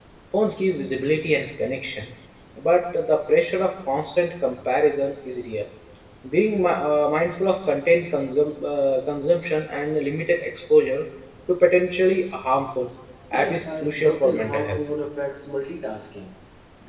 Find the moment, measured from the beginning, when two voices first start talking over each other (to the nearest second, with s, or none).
13 s